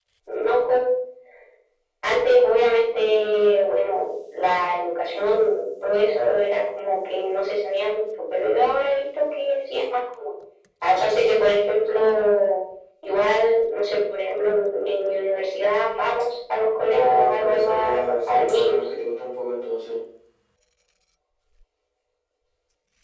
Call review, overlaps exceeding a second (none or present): present